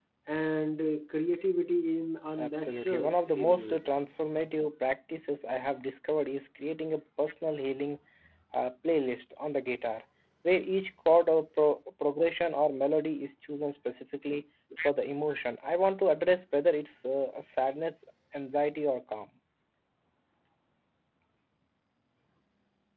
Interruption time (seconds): 2.4 s

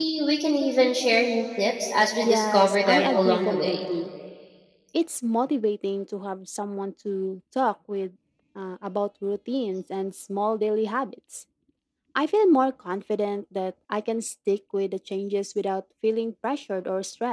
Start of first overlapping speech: 2.2 s

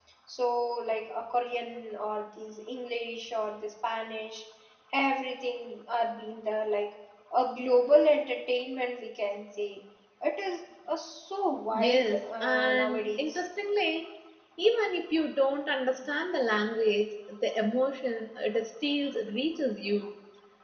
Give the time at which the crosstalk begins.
11.7 s

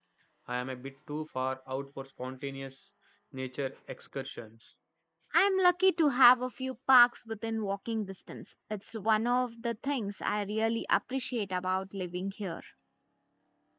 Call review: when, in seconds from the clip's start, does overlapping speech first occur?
none

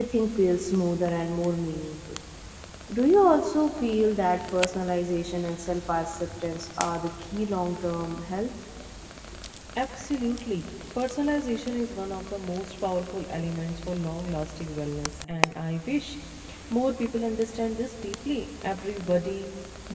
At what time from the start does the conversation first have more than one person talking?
none

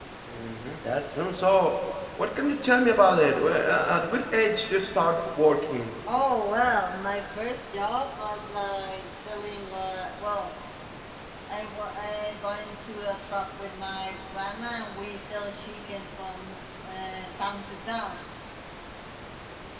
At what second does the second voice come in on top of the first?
none

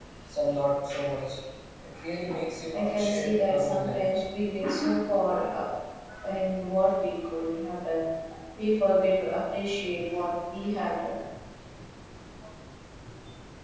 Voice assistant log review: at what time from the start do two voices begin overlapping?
2.7 s

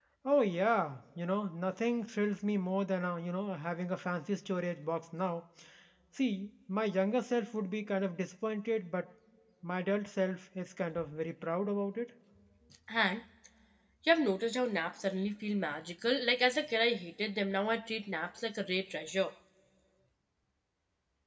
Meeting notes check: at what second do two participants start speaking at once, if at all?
none

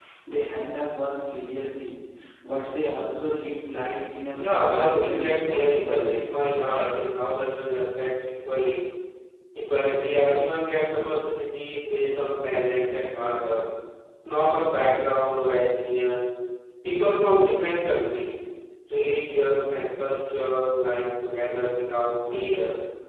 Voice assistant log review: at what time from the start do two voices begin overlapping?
4.3 s

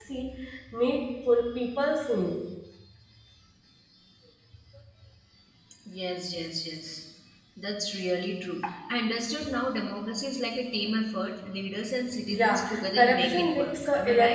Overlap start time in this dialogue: 12.3 s

